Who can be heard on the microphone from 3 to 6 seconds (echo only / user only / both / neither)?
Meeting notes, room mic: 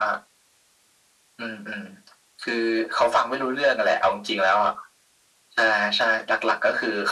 echo only